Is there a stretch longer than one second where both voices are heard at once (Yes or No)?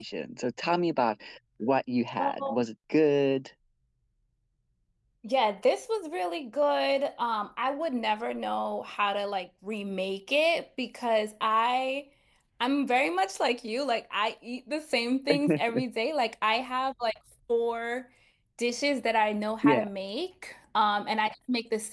No